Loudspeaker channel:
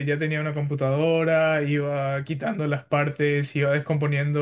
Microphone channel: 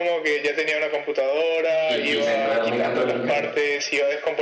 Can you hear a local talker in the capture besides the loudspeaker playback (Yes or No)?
Yes